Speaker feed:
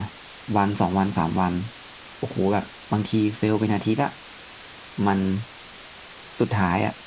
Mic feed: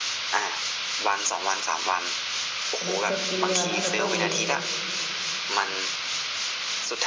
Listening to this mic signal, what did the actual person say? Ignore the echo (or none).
mindset ดีมาตั้งแต่ต้นเลย